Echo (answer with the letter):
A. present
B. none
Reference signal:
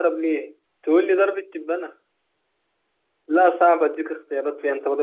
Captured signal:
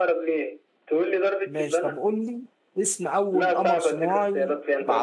A